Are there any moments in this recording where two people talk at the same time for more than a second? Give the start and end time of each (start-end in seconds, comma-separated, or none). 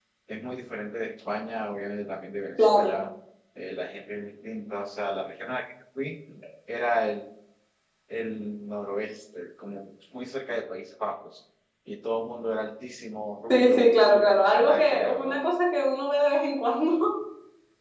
13.5-15.4